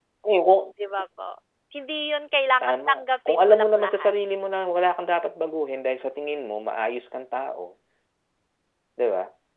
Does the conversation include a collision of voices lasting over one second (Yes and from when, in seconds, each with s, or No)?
Yes, from 2.6 s